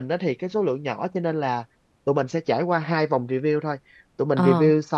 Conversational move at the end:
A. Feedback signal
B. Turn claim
A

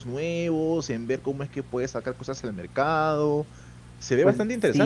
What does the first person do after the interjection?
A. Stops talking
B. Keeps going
A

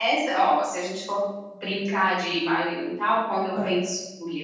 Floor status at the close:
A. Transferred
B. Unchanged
B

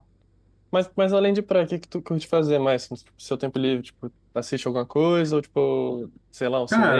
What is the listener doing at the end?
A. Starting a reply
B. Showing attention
A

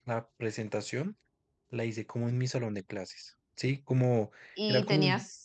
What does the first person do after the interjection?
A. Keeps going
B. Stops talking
B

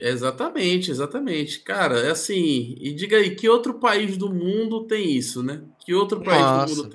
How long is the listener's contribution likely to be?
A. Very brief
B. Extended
B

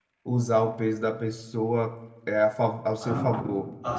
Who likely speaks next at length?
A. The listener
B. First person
A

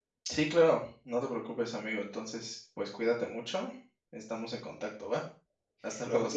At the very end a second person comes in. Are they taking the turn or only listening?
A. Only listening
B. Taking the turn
B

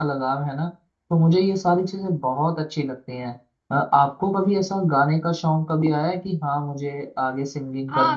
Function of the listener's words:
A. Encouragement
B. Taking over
B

